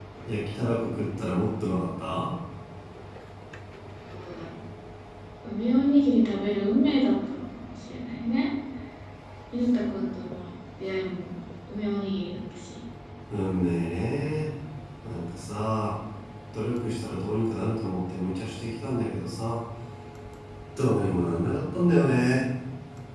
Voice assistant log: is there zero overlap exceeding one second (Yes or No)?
Yes